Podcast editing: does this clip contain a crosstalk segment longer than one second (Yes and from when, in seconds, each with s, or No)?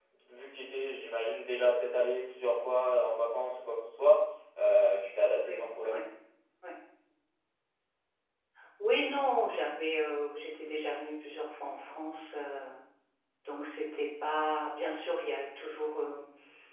No